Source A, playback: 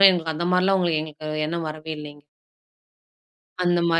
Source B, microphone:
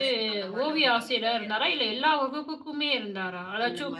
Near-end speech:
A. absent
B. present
B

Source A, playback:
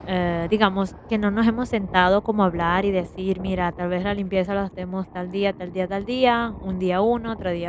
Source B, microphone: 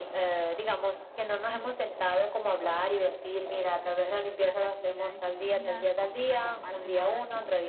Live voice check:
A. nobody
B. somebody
B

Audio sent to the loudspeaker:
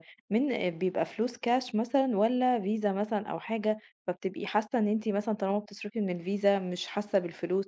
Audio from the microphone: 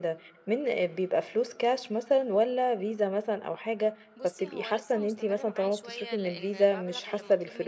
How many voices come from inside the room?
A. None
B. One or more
B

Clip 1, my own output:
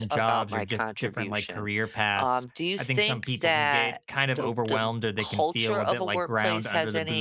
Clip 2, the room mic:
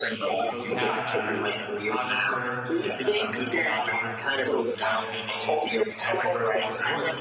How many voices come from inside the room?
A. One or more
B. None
A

